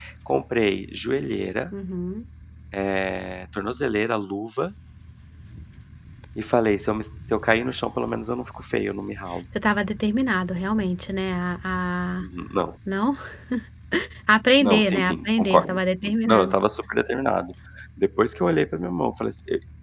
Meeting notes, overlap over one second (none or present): present